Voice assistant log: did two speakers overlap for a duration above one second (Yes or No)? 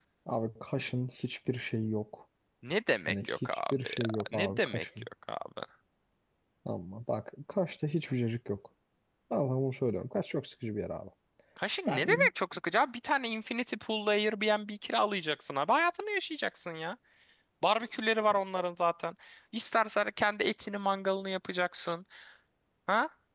Yes